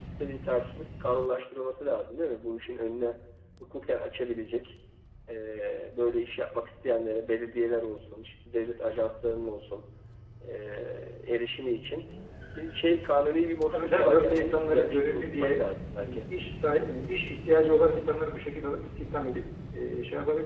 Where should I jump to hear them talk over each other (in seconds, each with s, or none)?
13.7 s